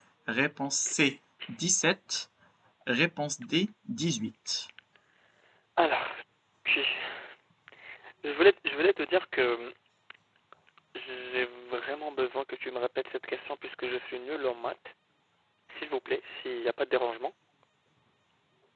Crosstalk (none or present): none